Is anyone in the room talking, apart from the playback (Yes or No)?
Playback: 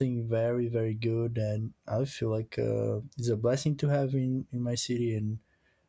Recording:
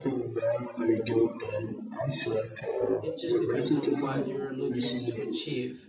Yes